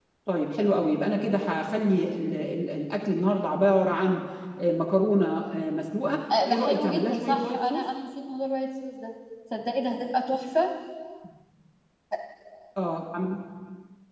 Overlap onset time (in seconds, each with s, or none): 6.3 s